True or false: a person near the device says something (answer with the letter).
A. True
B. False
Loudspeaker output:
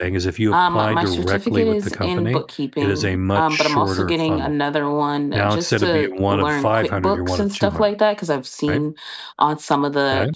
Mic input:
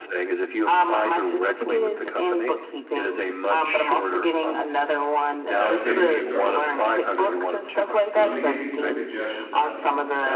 A